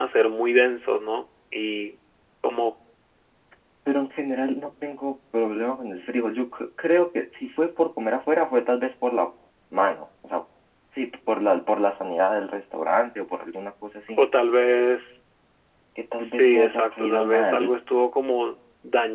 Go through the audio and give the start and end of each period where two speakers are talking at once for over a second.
16.2-17.6

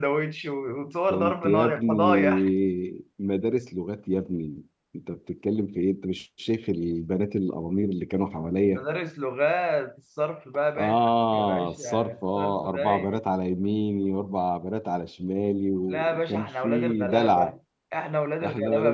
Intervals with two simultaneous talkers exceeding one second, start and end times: 1.1-2.4, 10.8-13.2, 15.9-17.5

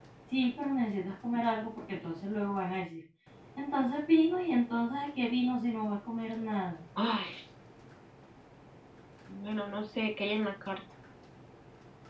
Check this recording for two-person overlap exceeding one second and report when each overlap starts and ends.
none

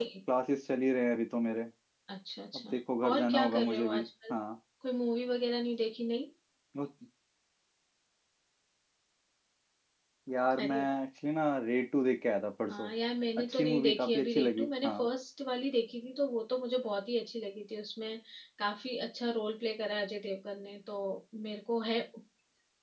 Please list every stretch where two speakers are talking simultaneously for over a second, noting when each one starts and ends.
2.5-4.3, 13.4-15.1

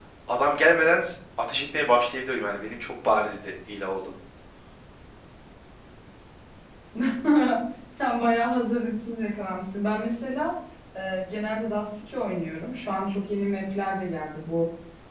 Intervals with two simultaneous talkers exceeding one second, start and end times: none

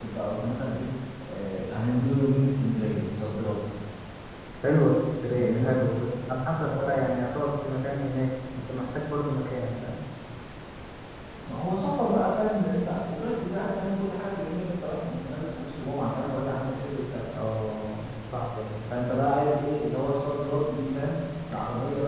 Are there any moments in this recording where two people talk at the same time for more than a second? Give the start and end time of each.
none

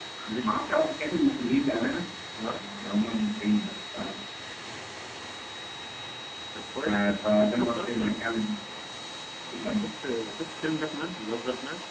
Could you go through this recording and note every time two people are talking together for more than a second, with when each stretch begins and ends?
6.8-8.4

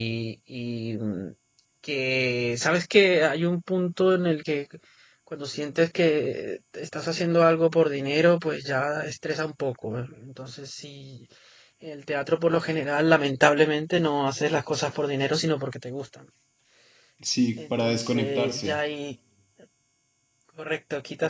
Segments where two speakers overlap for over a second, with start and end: 17.6-18.8

